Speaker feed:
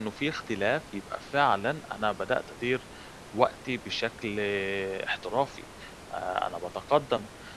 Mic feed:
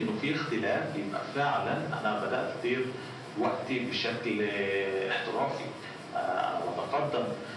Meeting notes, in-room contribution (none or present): none